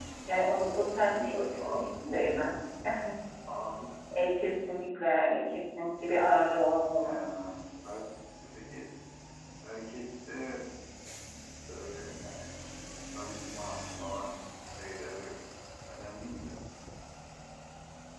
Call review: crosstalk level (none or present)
present